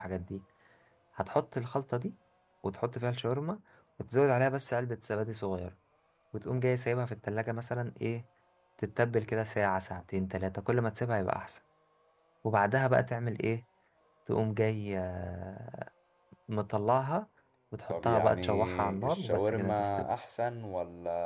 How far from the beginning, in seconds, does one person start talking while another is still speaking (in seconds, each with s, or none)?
17.9 s